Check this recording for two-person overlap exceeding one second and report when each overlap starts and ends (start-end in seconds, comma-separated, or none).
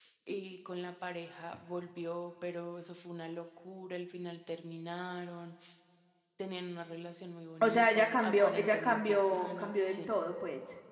7.6-10.0